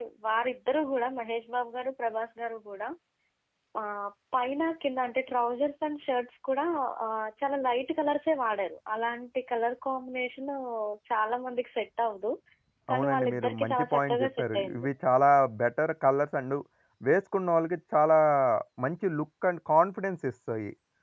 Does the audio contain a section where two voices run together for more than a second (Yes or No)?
Yes